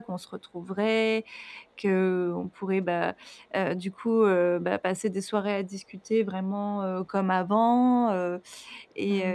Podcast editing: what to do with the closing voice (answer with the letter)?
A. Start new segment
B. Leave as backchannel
B